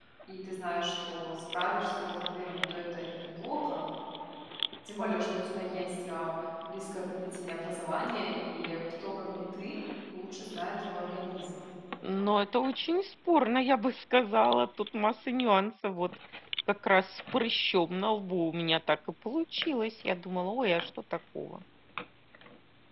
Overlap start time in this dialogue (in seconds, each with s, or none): none